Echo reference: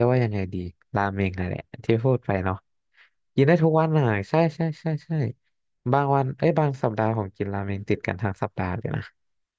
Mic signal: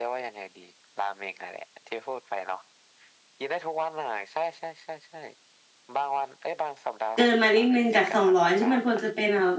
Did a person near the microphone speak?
Yes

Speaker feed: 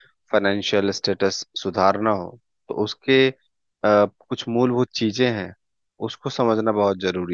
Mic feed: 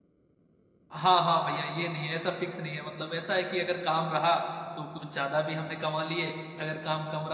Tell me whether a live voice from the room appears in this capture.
Yes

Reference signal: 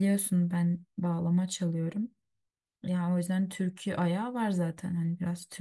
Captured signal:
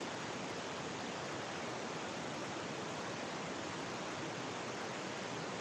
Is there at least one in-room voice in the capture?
No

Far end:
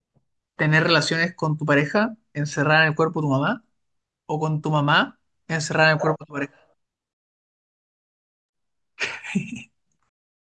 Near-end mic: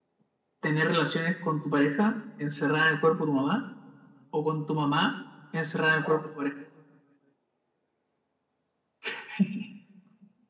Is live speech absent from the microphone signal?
Yes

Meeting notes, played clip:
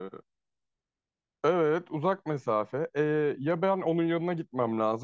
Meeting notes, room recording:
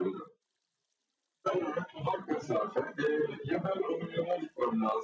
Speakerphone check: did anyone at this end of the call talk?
No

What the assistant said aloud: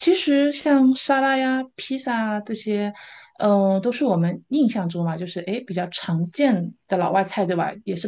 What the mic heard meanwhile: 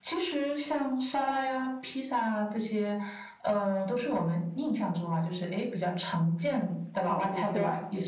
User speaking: Yes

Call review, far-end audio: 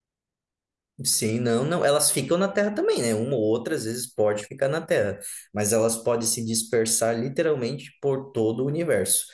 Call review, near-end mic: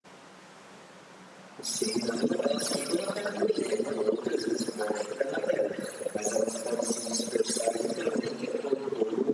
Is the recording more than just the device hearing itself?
No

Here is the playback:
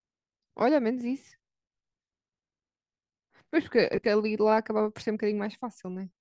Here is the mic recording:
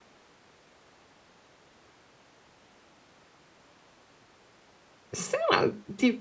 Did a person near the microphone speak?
Yes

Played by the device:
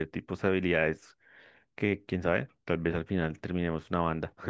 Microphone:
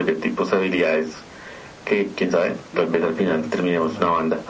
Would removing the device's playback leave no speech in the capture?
No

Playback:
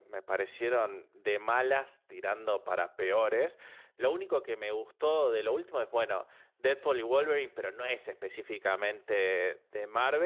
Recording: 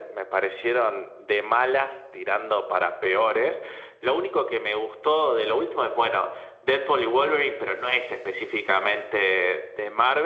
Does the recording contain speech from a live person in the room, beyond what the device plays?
No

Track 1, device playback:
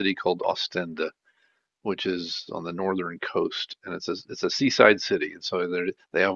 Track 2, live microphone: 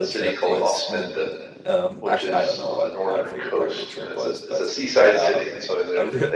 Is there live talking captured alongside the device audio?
Yes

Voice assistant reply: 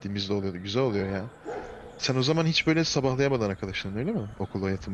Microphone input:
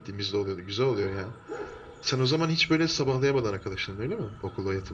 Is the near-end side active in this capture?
No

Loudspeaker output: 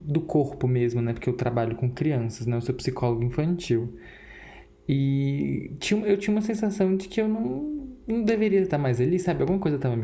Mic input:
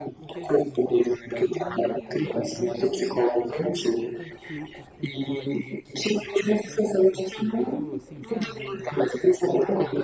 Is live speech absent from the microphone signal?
No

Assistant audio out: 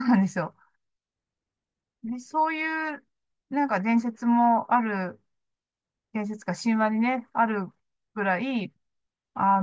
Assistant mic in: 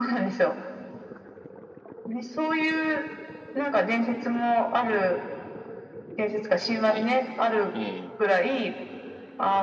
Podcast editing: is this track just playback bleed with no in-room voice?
No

